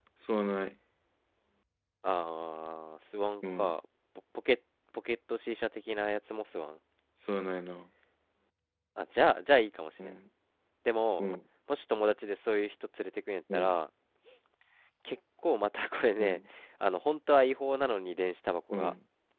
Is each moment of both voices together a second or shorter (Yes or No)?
Yes